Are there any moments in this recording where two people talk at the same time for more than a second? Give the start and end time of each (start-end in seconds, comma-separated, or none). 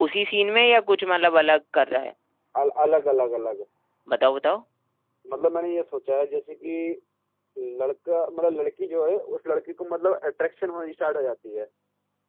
none